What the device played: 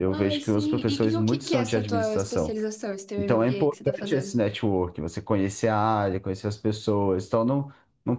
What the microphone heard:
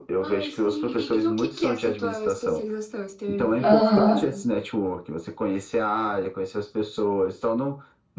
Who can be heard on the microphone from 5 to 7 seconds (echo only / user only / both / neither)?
echo only